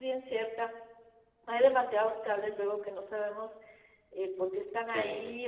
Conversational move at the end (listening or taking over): listening